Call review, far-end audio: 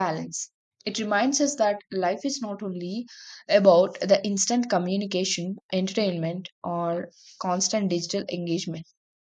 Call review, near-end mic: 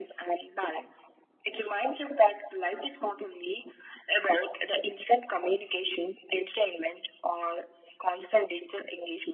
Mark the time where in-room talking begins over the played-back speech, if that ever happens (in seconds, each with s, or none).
none